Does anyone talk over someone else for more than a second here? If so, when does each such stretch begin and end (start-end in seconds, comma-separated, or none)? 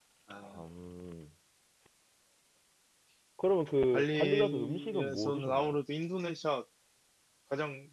3.9-5.8